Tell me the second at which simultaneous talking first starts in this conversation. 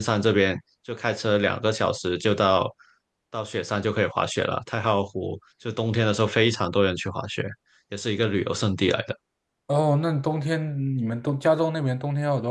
none

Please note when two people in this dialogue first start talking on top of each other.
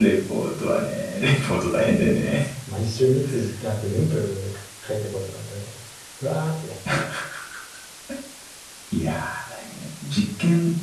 none

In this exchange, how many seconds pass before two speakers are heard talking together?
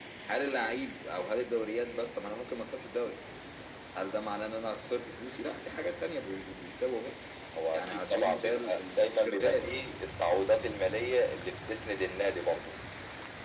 7.7 s

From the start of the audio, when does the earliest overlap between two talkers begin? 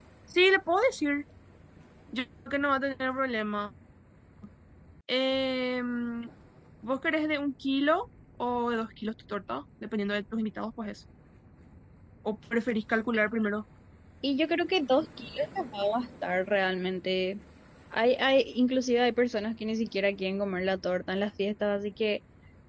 none

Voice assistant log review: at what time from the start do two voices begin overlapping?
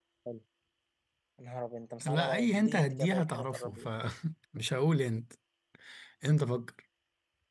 2.0 s

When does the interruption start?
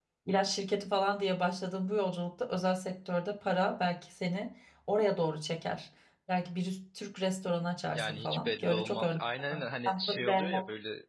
8.0 s

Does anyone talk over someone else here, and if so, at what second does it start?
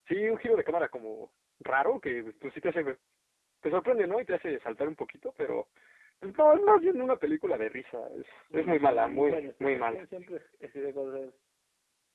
8.5 s

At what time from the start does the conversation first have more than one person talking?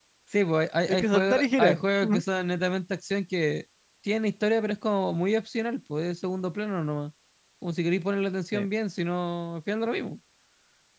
0.9 s

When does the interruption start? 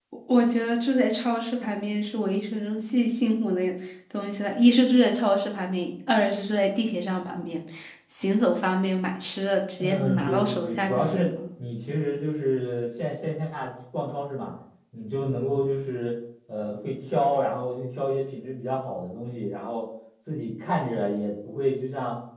9.8 s

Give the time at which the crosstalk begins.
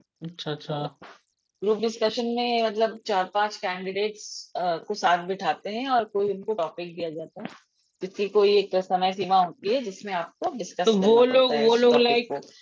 10.9 s

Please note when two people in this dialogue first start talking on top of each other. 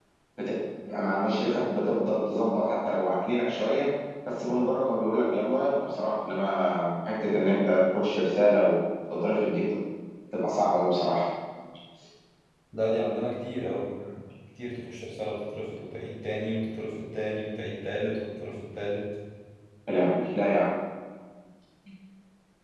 none

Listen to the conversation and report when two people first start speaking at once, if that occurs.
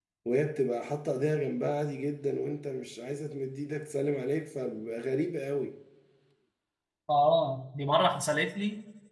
none

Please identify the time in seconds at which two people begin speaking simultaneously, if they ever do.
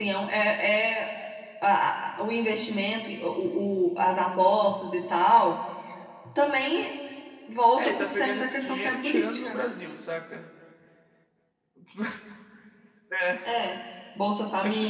7.8 s

